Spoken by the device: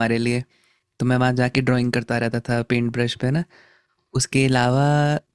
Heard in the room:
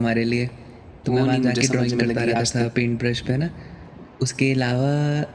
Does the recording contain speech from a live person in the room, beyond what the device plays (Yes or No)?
Yes